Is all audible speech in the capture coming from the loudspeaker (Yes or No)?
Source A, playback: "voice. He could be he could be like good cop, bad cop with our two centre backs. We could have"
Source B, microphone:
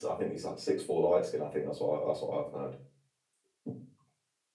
No